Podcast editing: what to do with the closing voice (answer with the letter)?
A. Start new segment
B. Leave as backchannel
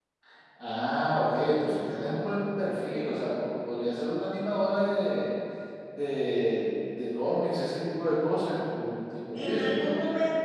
A